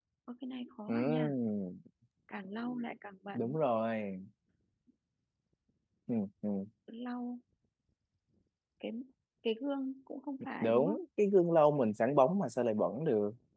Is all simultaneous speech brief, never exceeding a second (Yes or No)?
Yes